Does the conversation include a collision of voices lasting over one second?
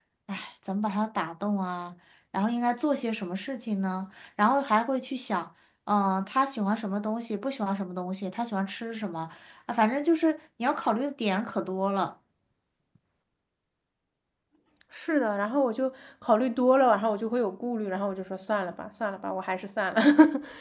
No

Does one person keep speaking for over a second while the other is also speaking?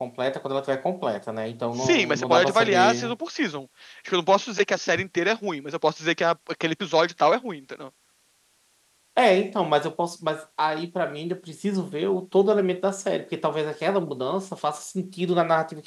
Yes, from 1.8 s

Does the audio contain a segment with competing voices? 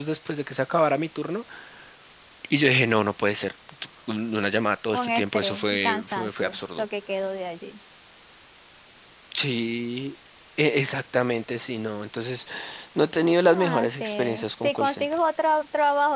Yes, from 4.9 s

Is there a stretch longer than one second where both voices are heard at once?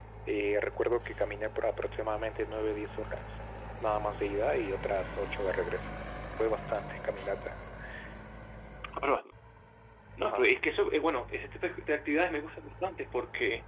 No

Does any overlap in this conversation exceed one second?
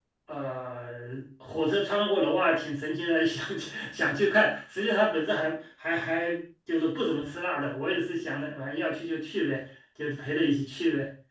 No

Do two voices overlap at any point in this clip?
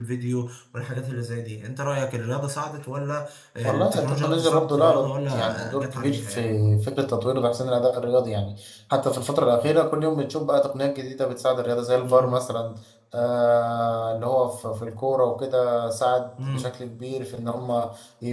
Yes, from 3.6 s

